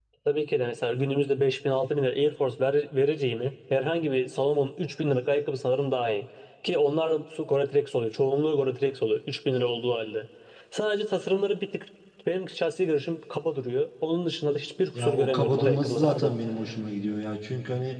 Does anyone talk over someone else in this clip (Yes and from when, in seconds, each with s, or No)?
Yes, from 14.9 s